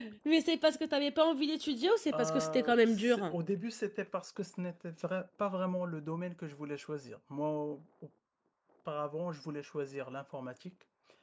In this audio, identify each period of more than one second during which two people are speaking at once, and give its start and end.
2.1-3.4

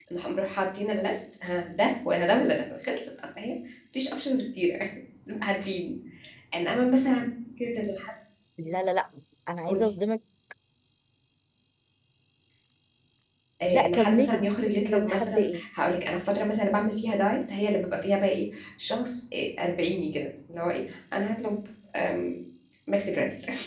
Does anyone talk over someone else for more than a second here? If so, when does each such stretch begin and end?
13.6-15.6

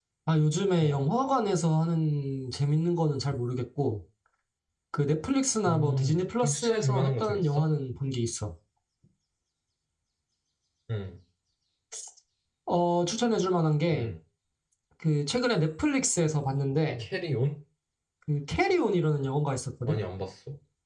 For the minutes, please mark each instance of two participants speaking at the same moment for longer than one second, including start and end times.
5.7-7.7

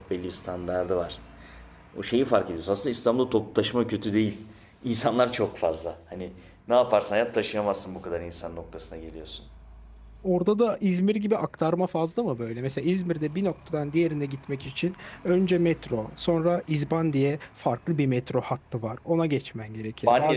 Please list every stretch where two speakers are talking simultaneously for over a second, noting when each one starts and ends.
none

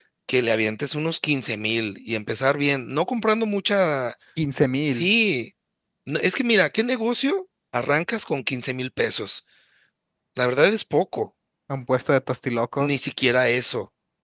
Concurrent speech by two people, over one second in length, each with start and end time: none

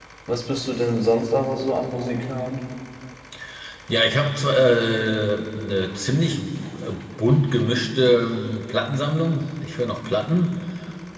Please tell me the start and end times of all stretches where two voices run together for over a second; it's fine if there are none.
none

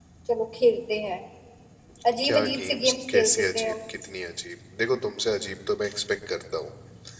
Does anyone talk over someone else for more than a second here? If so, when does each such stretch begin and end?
2.2-3.7

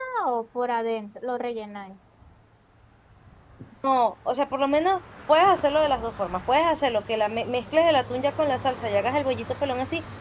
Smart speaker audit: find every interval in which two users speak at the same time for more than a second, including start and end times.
none

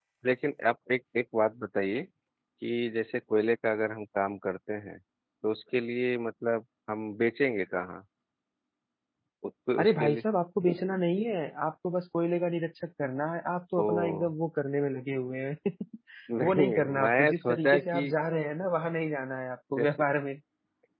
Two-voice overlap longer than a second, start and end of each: 16.4-18.1

